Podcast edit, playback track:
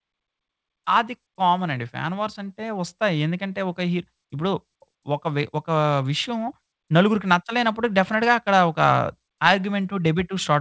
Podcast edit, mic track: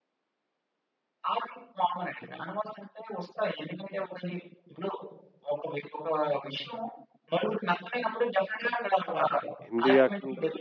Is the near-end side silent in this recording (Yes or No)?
No